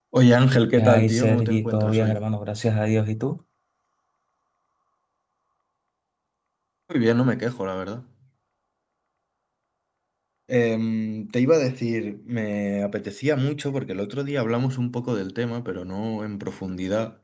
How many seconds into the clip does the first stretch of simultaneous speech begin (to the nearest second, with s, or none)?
1 s